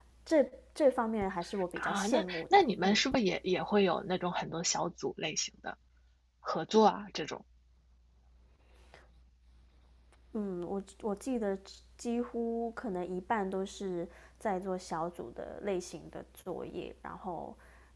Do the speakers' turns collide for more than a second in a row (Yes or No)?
Yes